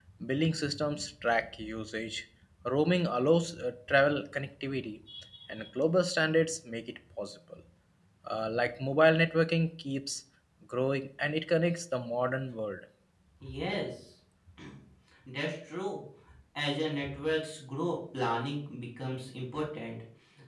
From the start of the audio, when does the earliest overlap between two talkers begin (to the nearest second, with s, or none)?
none